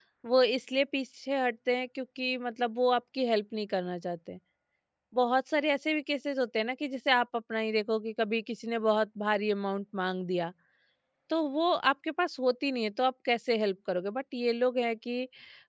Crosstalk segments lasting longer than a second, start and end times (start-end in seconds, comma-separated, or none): none